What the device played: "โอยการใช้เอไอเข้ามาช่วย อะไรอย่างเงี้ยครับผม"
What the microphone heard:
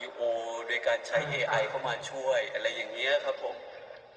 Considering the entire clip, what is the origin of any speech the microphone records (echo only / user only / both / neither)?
both